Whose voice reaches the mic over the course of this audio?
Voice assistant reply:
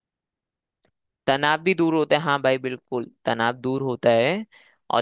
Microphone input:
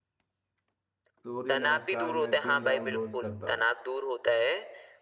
both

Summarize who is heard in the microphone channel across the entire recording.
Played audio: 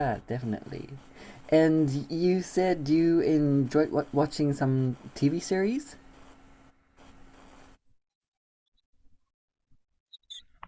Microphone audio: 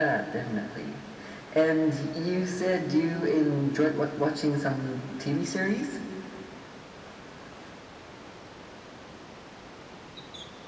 echo only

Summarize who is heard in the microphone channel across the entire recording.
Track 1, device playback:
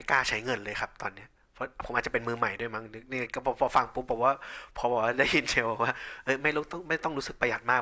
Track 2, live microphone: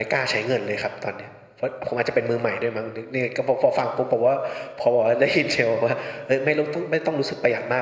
echo only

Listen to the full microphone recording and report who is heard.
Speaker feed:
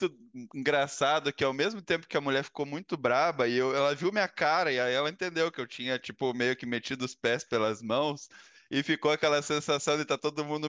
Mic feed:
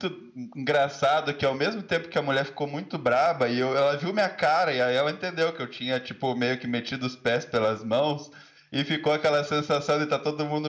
echo only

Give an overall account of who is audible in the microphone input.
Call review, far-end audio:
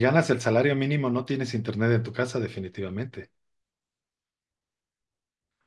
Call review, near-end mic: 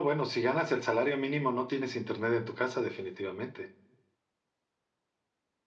echo only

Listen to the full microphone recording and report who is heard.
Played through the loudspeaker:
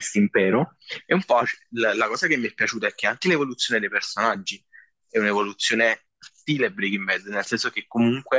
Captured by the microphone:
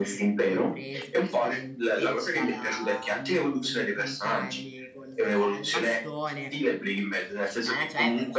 both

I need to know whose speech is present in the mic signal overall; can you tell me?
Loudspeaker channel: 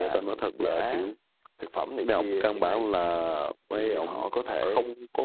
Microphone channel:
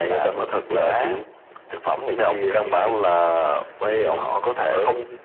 echo only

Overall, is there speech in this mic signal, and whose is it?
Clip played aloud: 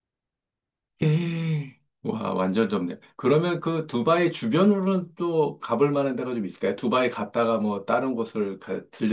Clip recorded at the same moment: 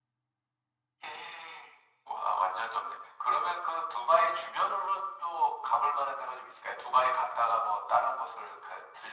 echo only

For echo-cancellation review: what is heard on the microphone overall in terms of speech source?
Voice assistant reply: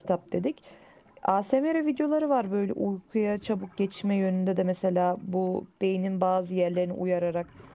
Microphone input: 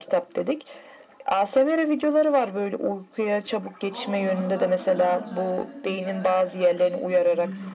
both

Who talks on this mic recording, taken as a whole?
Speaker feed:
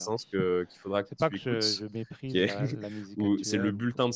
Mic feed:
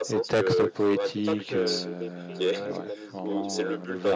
both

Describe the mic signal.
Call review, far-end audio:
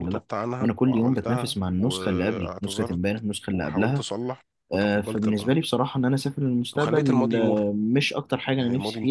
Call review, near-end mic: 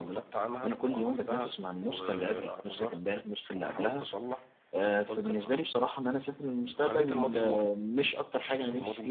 echo only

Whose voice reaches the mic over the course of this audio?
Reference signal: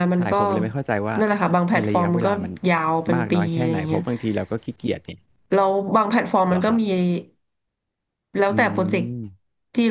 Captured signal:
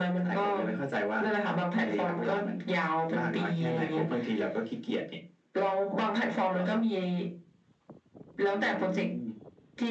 echo only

